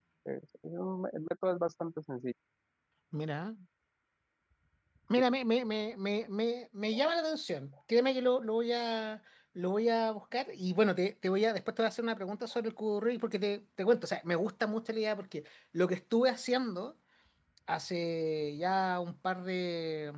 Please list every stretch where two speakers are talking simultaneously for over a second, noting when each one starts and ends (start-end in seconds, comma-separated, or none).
none